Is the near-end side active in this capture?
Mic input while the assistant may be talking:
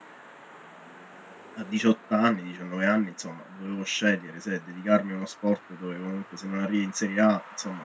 Yes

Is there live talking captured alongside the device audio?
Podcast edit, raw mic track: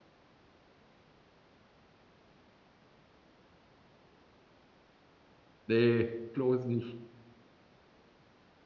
Yes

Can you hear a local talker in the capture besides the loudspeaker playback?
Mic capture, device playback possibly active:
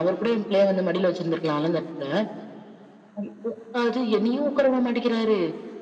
No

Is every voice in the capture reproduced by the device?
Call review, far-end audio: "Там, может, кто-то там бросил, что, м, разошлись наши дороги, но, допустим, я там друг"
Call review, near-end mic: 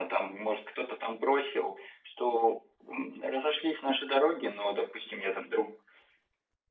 Yes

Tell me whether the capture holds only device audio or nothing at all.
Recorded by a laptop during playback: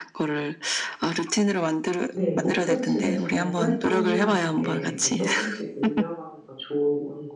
No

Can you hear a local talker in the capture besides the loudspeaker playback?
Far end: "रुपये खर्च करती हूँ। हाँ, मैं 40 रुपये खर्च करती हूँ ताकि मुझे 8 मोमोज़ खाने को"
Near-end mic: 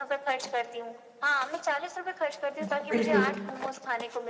Yes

